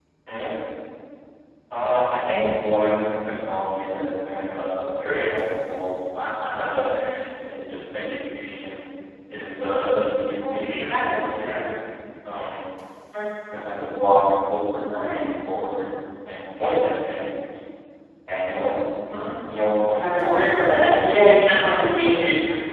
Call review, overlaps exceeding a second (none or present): present